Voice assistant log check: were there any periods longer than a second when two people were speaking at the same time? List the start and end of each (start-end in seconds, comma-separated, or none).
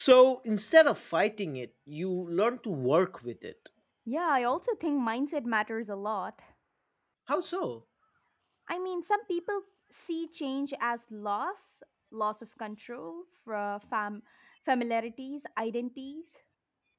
none